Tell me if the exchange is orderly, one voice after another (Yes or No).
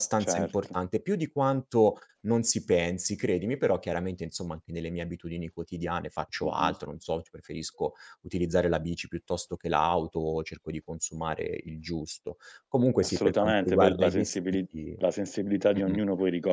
No